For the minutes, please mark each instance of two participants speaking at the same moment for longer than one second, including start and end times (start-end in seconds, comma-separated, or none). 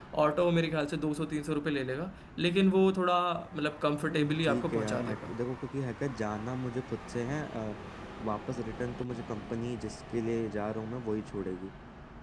4.0-5.3